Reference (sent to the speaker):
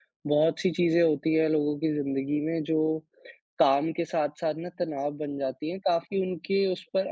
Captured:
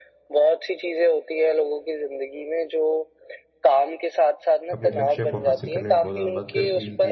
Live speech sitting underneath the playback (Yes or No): Yes